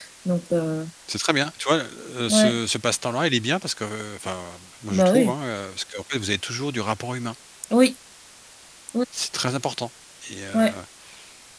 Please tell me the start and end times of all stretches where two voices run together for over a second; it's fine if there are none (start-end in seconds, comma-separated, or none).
none